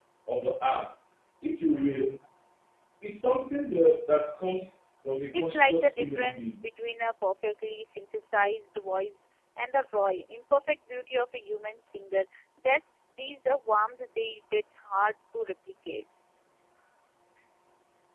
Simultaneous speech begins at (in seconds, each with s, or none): 5.3 s